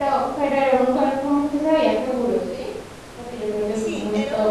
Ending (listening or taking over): taking over